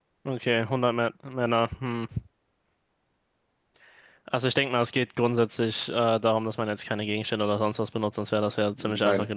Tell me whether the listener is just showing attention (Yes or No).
Yes